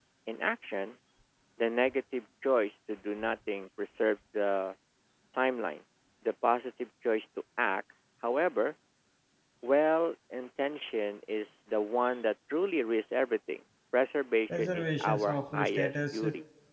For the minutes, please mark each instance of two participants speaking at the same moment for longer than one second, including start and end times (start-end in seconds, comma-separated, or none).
14.6-16.2